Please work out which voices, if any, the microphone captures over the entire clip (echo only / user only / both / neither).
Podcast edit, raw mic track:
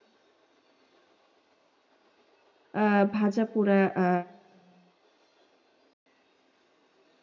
user only